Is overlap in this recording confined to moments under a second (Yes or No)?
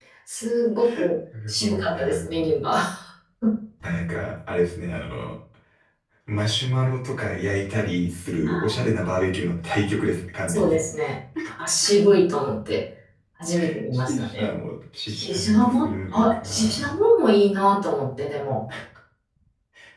No